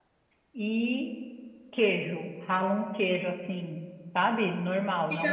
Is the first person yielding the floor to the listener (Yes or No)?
No